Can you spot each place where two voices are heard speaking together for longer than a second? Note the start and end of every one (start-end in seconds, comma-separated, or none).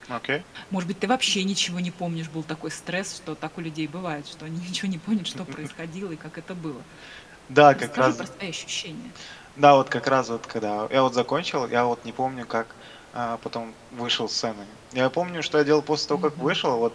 none